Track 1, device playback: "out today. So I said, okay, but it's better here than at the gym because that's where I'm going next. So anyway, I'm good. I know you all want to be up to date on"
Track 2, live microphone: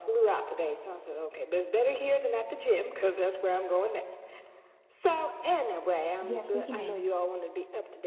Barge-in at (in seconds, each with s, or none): 6.2 s